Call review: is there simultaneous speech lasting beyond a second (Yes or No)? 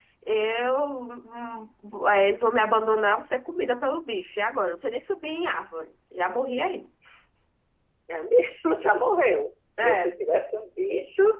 No